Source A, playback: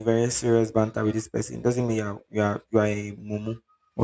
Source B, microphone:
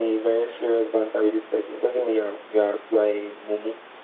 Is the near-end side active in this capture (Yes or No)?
No